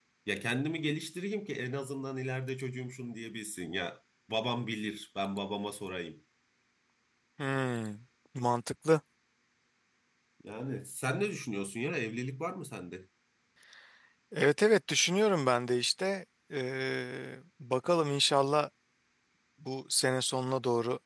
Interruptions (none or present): none